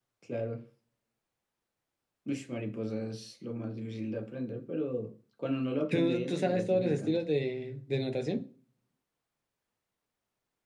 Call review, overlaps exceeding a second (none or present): present